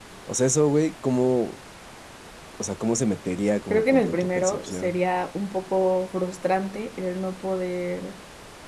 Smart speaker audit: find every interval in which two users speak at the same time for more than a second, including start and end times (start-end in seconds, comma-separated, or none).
3.7-5.0